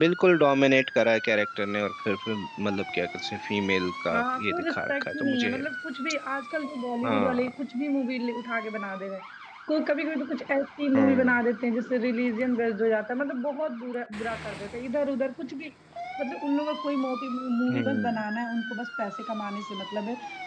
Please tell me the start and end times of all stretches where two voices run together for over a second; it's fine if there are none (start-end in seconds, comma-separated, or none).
4.1-5.6